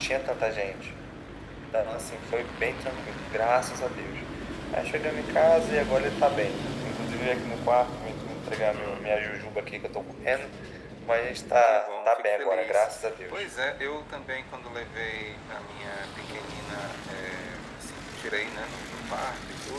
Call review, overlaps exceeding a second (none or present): present